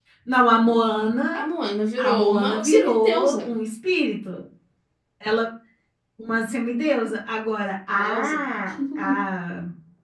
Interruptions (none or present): present